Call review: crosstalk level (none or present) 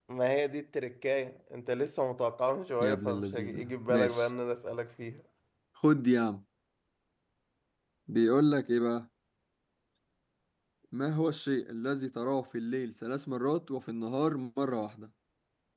present